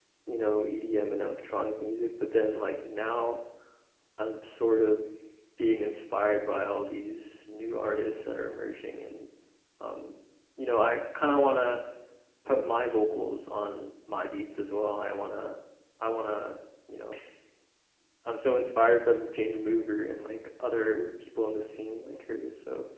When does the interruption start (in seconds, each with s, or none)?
none